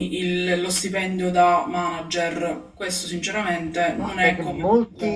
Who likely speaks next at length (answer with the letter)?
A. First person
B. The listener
B